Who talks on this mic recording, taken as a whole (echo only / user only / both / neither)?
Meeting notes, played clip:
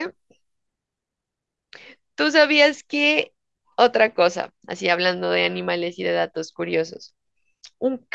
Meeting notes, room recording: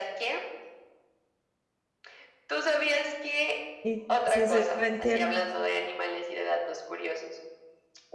both